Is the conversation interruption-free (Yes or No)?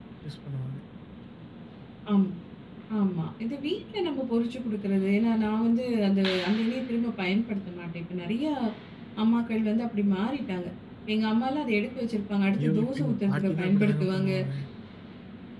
No